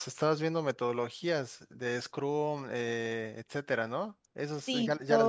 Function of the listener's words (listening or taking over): taking over